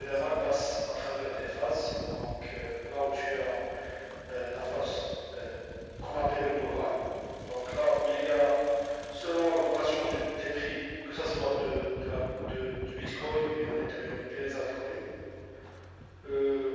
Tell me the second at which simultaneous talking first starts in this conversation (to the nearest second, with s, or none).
none